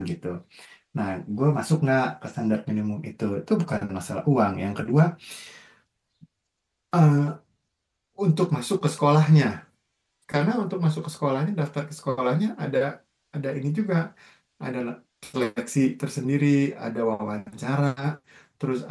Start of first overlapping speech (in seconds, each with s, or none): none